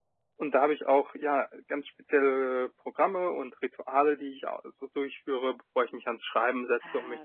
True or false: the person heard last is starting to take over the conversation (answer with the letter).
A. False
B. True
B